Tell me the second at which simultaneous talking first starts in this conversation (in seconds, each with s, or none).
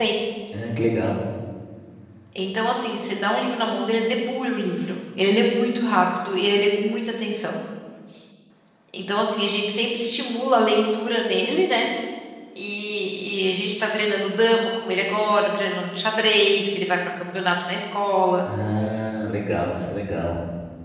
none